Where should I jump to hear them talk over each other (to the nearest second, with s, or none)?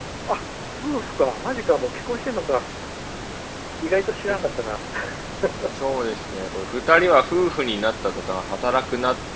none